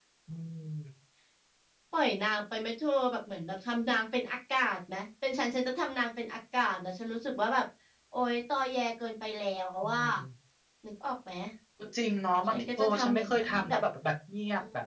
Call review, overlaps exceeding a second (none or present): present